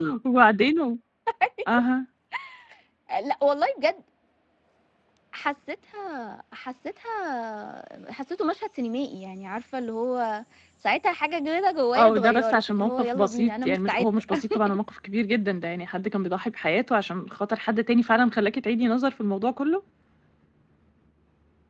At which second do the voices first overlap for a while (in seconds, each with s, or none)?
11.9 s